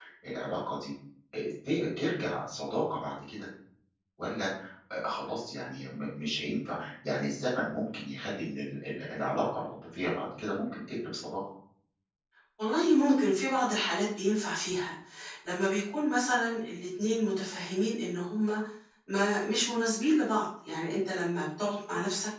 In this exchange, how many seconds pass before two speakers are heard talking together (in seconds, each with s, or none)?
none